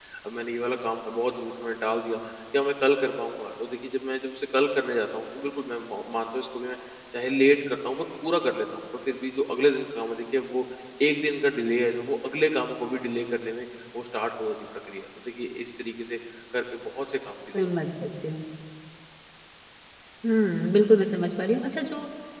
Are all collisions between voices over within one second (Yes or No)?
Yes